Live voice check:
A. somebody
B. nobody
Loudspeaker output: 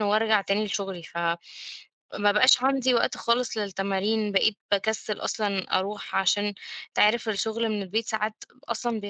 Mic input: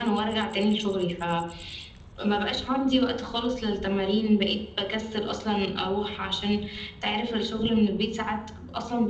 B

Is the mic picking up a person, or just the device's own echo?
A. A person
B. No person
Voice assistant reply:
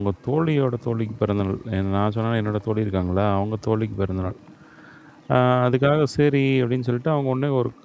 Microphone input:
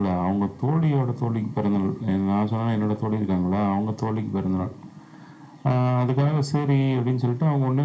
B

